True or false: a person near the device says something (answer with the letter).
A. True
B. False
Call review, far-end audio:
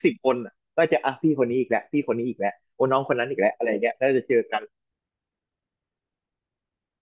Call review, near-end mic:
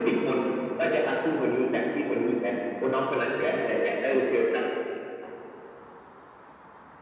B